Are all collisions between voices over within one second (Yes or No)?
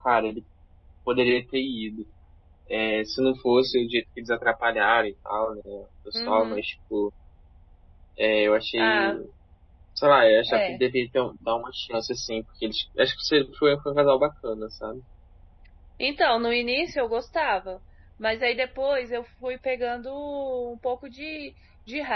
Yes